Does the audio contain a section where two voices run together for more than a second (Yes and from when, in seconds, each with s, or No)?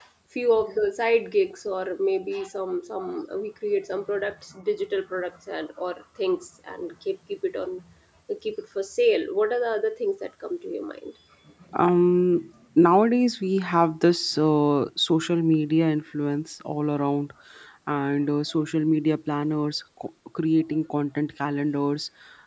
No